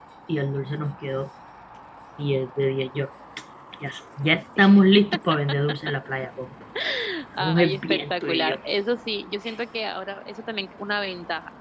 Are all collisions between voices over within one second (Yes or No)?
No